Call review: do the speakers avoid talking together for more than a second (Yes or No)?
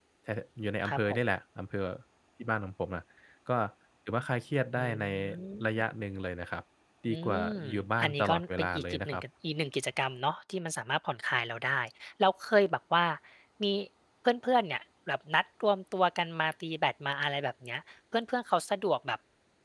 No